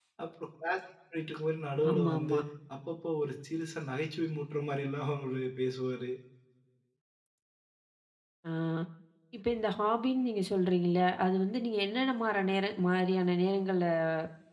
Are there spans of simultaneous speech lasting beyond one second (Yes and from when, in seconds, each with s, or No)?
No